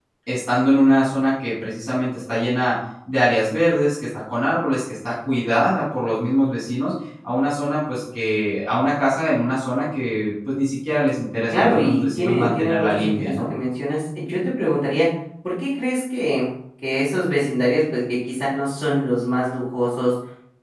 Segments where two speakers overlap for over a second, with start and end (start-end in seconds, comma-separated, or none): 11.5-13.4